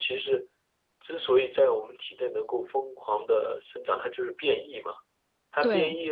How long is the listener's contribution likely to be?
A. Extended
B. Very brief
B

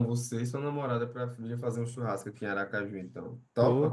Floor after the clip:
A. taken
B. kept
A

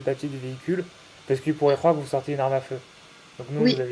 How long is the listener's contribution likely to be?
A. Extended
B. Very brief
B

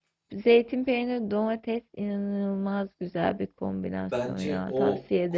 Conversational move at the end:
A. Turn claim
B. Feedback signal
A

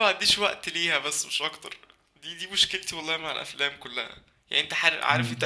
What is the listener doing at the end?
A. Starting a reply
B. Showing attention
B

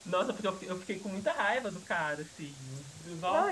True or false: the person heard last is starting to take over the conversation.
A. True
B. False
A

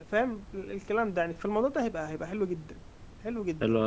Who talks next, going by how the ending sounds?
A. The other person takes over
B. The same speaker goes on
A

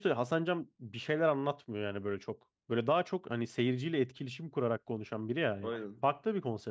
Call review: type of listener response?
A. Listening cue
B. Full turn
A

